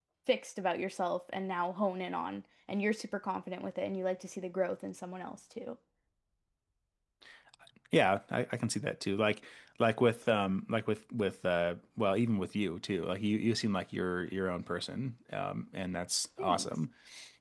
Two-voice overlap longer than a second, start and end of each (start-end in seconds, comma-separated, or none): none